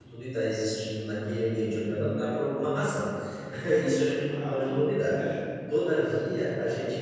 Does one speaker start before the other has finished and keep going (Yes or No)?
Yes